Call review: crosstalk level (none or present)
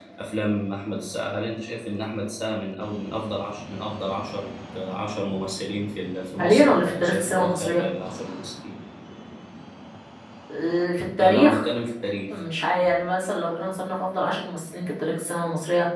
present